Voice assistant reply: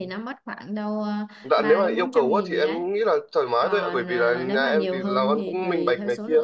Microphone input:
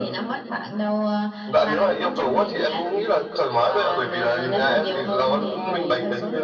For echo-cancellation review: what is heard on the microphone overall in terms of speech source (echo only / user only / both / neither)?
echo only